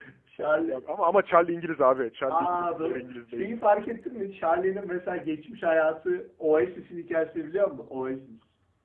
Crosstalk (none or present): present